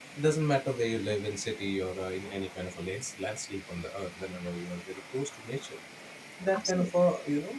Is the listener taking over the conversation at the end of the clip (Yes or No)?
No